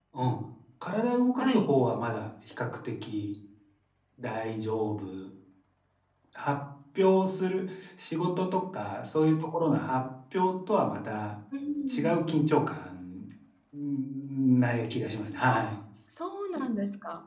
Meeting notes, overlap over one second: none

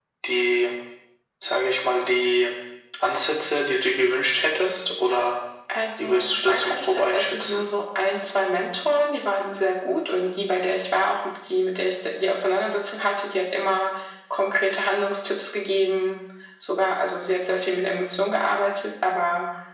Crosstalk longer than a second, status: present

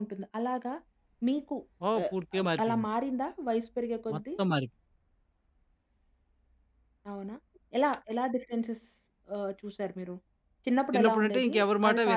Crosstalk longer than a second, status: present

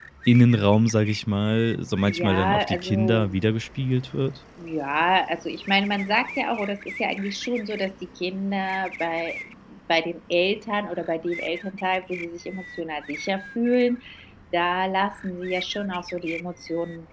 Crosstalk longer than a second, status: present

